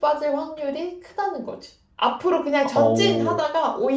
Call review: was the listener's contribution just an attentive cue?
Yes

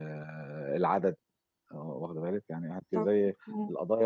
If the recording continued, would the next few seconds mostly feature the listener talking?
No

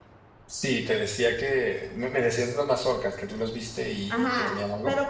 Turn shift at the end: Yes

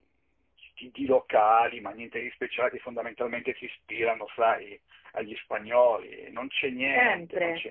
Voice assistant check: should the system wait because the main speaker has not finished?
No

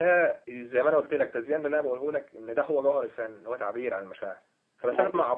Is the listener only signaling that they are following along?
Yes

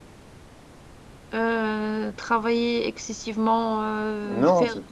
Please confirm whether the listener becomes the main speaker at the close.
No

